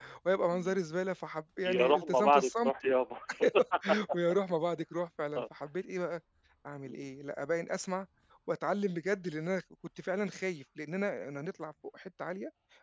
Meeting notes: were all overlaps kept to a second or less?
No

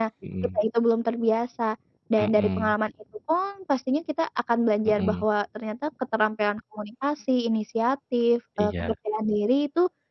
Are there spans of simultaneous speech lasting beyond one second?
No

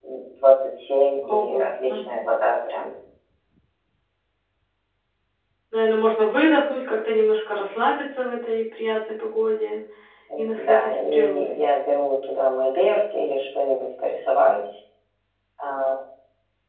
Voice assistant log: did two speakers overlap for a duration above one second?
Yes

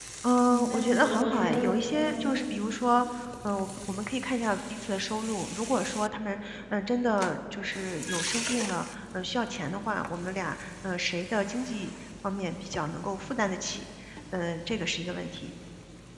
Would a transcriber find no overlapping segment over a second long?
No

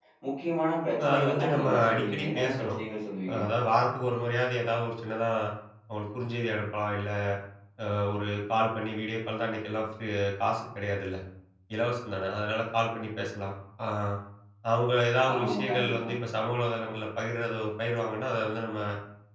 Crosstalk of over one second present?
Yes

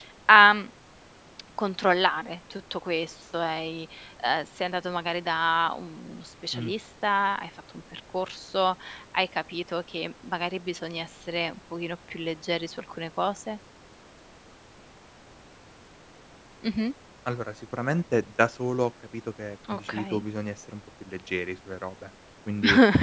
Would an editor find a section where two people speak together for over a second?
No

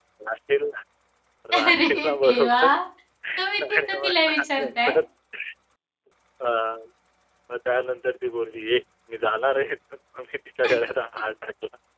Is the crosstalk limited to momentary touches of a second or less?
No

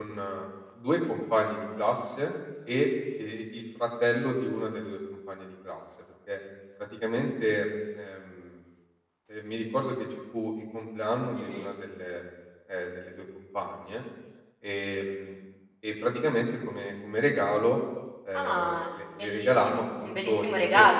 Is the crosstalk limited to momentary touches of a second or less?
No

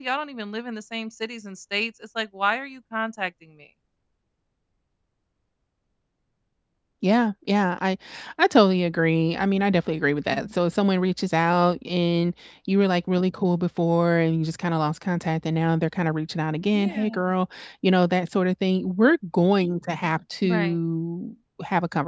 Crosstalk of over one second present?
No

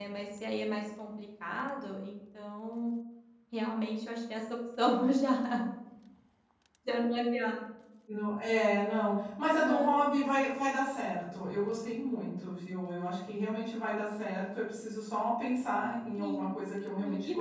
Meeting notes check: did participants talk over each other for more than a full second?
No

